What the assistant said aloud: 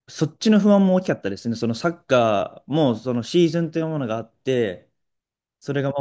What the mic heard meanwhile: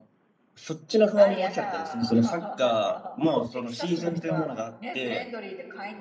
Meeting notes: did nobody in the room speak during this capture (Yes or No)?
No